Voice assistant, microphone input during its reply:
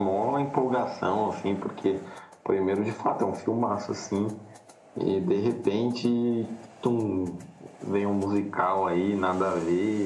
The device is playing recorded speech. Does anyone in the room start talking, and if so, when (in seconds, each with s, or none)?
none